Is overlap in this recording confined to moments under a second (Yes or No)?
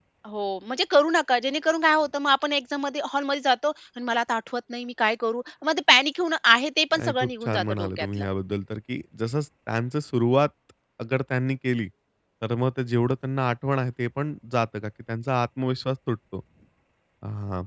No